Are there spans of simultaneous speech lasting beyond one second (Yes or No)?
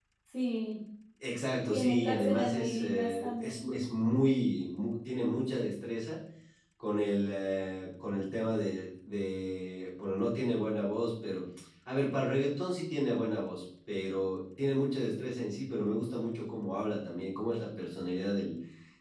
Yes